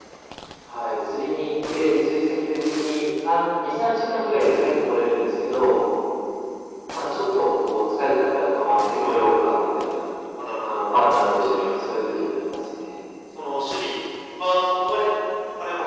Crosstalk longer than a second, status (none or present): none